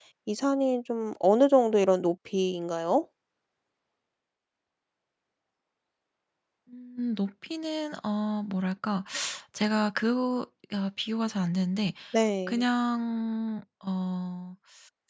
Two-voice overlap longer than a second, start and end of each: none

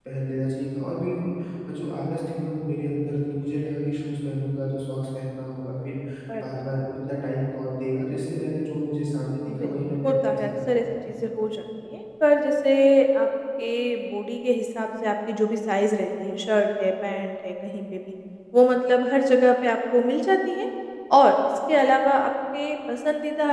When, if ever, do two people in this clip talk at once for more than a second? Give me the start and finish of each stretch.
9.5-10.9

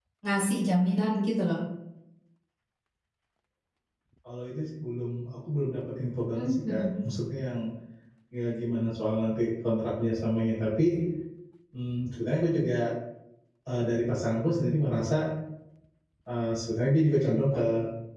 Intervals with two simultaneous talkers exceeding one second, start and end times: none

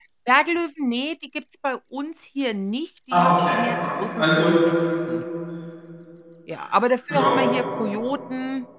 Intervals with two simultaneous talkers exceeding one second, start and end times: 3.1-4.6

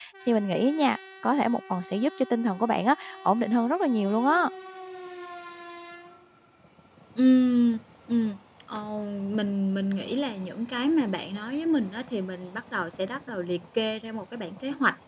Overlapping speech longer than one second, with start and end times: none

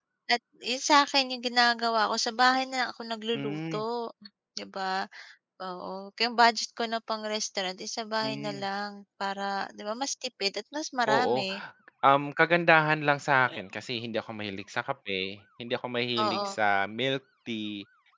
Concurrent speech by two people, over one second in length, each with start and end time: none

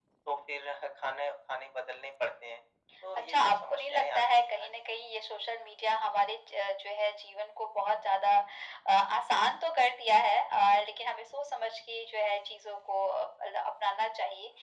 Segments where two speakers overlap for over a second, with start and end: 3.2-4.7

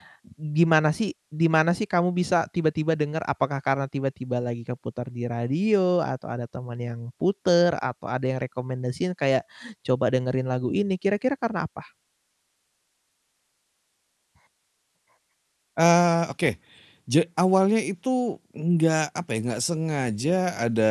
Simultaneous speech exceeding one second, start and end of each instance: none

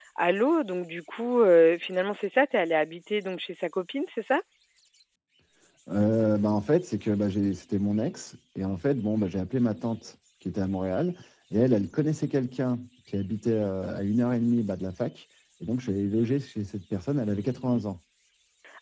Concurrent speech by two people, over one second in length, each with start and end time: none

